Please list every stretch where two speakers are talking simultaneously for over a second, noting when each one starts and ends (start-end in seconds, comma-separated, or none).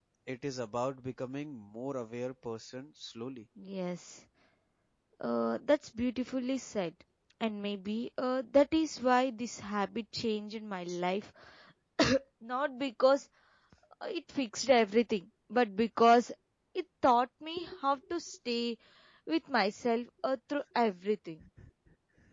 none